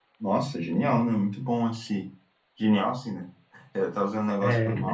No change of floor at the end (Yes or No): Yes